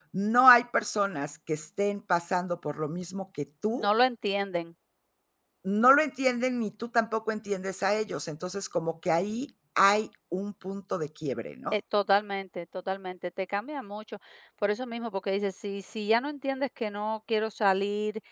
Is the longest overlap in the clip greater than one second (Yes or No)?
No